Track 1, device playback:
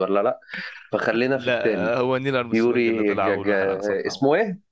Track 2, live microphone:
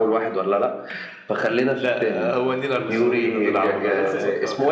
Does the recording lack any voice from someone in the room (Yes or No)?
No